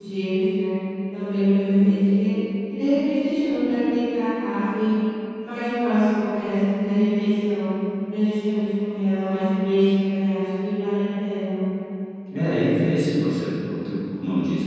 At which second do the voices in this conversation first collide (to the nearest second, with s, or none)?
none